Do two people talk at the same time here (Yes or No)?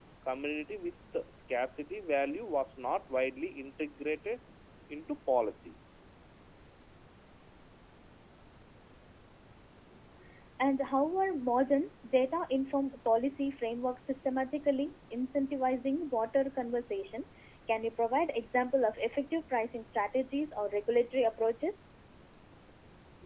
No